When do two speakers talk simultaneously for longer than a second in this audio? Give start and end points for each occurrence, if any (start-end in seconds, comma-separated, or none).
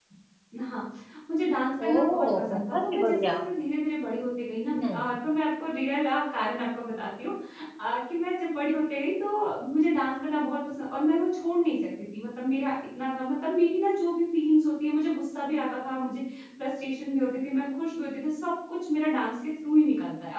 1.9-3.4